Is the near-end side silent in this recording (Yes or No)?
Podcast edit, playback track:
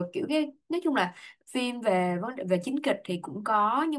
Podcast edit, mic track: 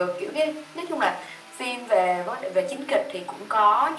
Yes